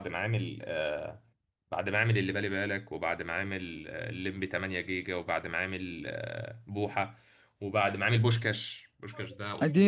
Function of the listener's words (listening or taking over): taking over